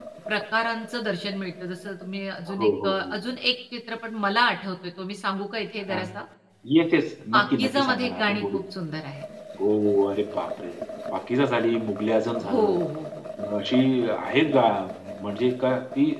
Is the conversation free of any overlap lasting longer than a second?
No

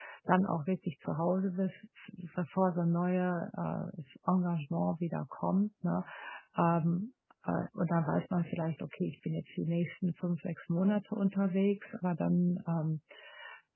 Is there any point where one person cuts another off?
No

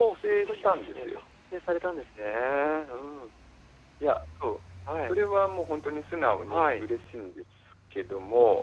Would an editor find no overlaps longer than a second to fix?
No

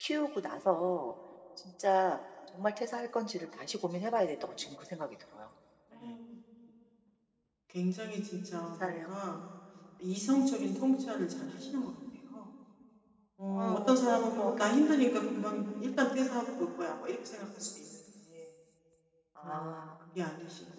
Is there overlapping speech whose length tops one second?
Yes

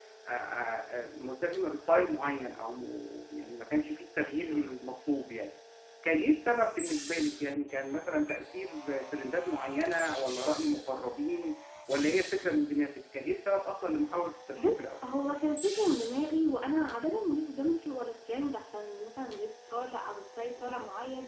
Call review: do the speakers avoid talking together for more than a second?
Yes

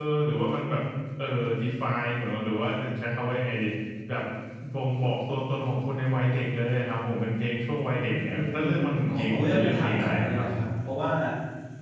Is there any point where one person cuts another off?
Yes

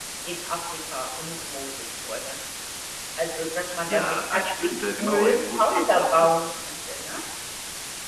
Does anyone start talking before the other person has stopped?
Yes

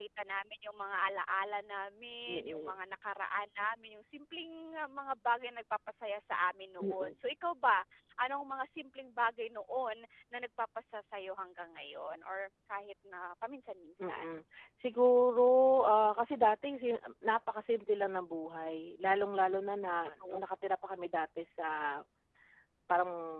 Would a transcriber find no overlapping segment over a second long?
Yes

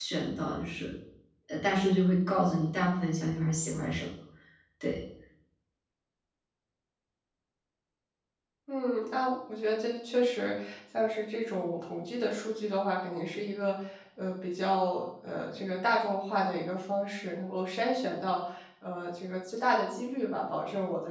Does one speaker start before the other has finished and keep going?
No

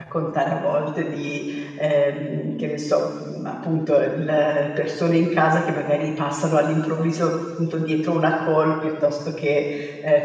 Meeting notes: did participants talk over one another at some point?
No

